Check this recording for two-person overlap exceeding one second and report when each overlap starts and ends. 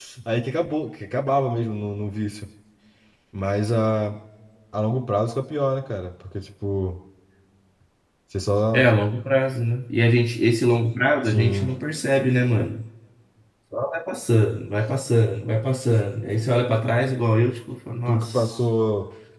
none

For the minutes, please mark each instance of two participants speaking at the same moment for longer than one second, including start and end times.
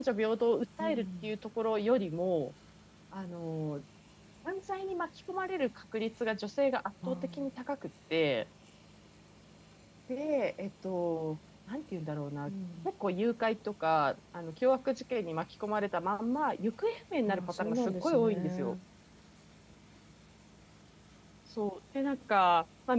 17.3-18.7

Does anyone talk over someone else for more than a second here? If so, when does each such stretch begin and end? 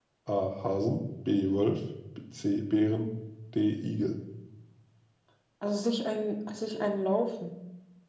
none

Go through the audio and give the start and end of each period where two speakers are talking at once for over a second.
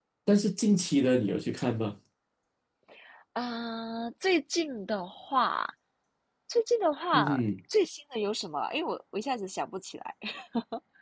none

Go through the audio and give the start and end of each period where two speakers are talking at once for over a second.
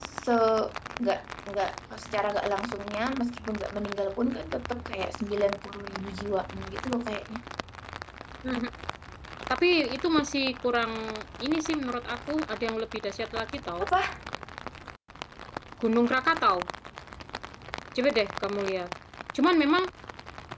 none

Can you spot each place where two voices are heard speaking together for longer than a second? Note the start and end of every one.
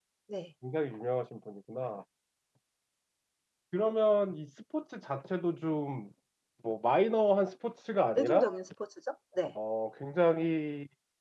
none

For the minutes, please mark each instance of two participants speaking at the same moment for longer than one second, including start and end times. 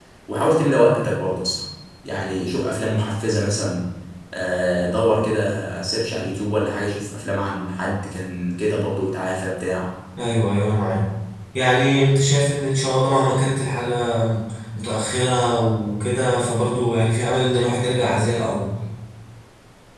none

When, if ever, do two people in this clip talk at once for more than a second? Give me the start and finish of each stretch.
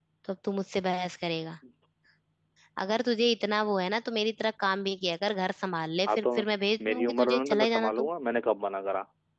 6.9-8.1

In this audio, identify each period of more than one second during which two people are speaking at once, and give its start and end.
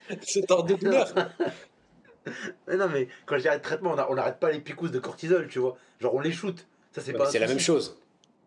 none

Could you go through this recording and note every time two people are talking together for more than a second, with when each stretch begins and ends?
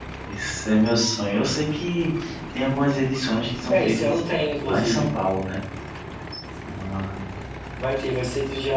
none

